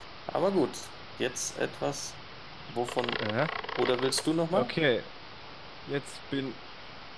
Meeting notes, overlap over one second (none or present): none